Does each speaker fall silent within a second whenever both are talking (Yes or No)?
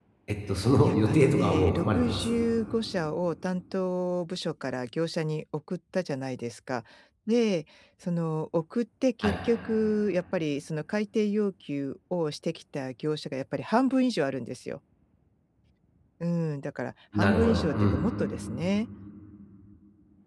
No